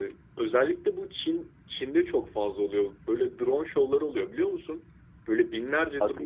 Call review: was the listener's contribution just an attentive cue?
Yes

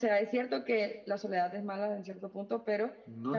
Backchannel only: Yes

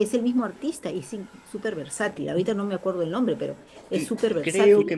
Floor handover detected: Yes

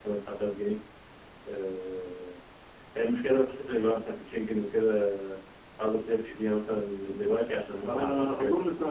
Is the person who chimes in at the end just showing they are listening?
No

